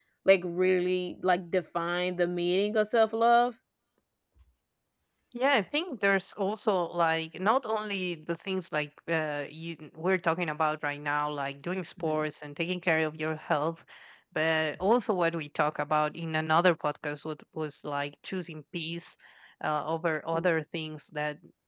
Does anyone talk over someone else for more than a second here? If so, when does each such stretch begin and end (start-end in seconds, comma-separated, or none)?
none